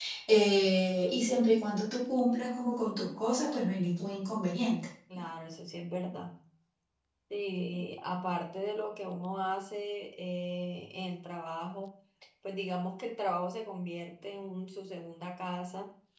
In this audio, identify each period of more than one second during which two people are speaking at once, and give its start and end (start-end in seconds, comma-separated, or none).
none